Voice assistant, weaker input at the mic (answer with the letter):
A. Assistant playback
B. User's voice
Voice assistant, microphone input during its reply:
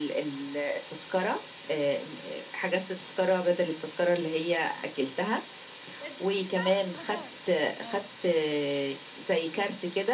B